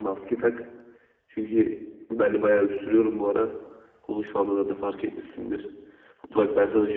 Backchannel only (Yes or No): Yes